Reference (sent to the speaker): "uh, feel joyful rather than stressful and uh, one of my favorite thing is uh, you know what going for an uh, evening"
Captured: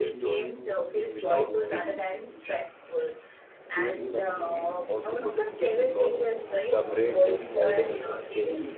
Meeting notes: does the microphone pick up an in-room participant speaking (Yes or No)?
Yes